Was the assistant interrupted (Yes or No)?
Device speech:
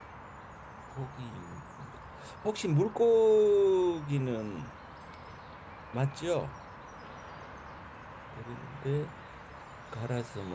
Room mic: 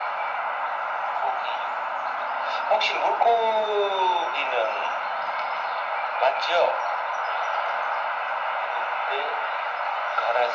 No